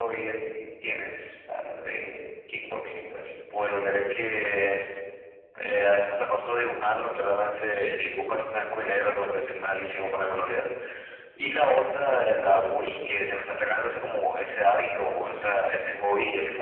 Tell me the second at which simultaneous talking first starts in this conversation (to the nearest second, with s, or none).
none